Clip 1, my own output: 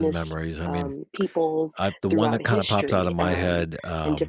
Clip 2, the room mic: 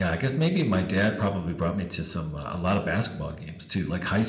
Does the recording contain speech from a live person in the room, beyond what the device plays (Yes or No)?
Yes